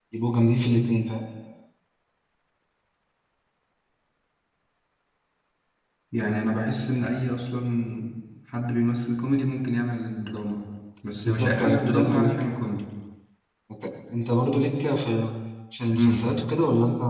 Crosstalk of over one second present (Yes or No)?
Yes